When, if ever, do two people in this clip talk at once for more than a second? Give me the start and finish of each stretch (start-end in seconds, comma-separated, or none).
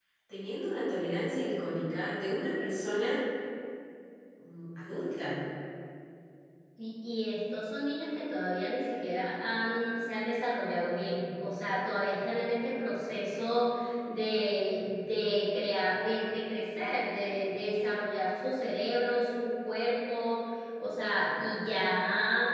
none